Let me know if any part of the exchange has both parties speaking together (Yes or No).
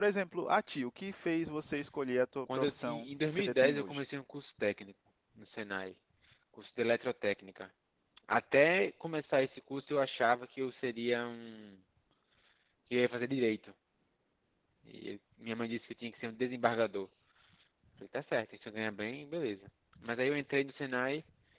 Yes